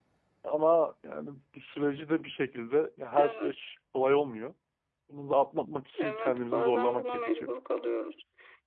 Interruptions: present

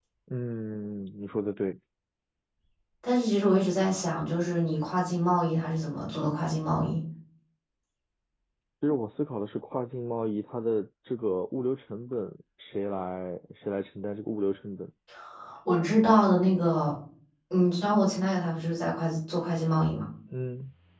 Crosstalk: none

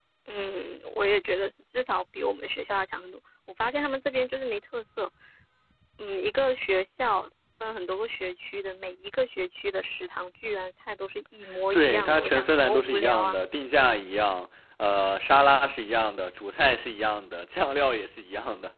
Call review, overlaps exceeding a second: present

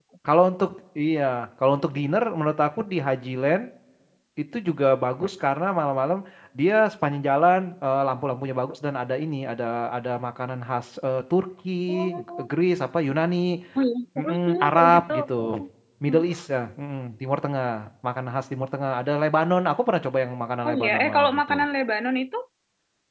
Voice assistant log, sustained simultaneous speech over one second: present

